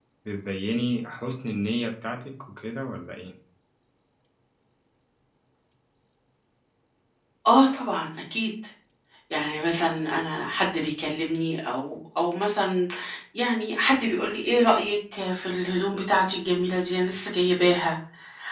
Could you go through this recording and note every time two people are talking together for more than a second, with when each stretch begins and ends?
none

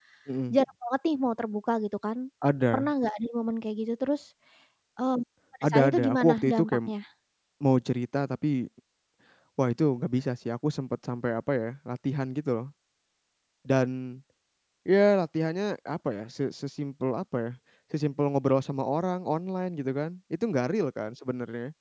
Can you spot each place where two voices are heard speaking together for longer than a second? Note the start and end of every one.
5.6-6.9

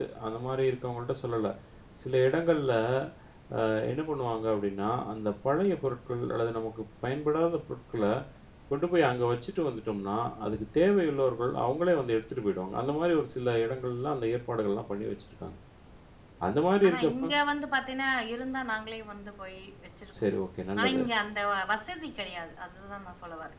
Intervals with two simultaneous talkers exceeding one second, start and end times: none

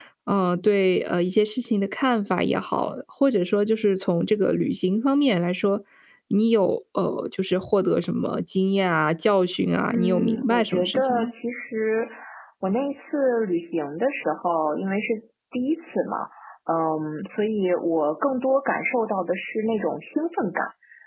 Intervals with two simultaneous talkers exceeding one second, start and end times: 9.9-11.3

